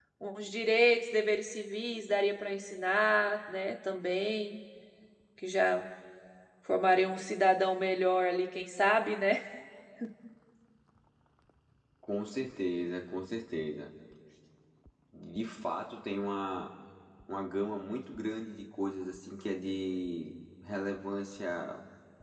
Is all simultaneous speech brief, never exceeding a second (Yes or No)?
Yes